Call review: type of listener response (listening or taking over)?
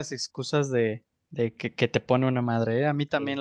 listening